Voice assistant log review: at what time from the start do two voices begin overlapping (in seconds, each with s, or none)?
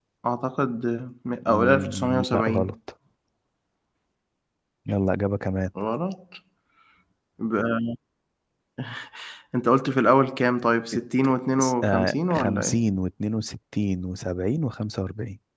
1.5 s